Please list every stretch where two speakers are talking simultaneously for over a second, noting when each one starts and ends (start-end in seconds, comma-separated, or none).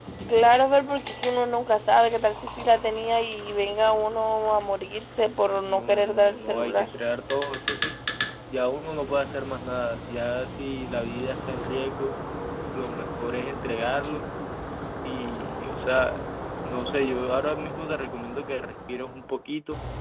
5.6-6.9